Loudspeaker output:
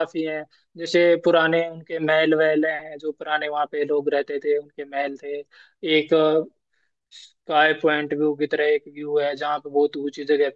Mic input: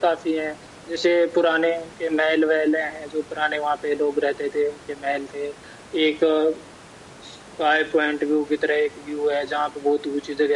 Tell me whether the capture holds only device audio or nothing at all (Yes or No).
Yes